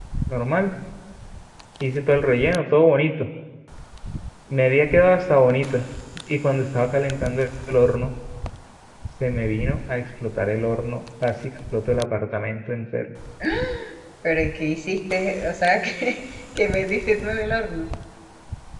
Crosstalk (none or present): none